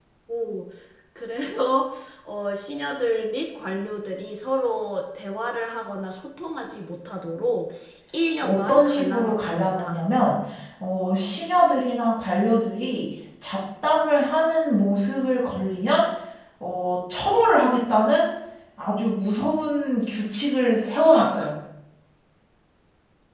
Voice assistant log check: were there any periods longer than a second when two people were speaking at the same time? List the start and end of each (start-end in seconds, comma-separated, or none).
8.4-10.0